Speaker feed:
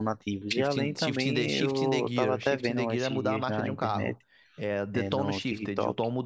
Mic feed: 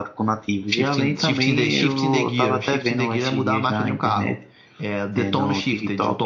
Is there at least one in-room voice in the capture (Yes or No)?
No